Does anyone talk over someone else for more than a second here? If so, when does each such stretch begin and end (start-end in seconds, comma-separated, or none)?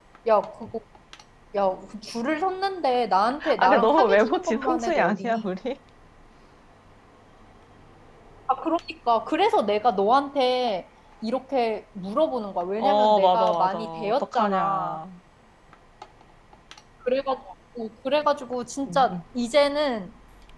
3.6-5.5, 12.8-15.0